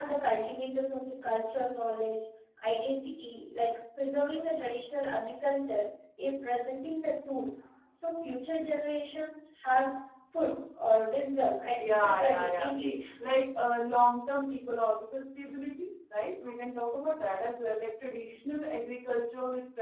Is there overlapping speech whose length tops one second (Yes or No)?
Yes